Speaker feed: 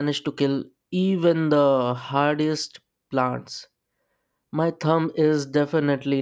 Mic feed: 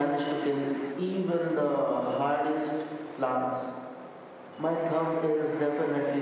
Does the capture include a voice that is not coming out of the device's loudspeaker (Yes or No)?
No